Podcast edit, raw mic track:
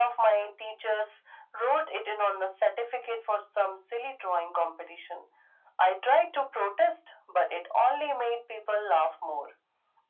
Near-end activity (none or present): none